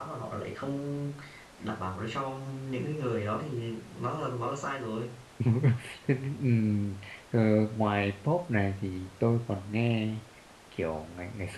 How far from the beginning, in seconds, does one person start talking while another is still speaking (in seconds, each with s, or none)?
none